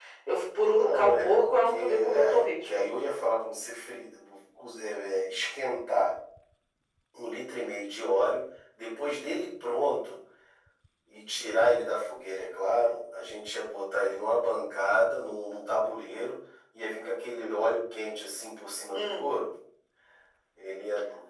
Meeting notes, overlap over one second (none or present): present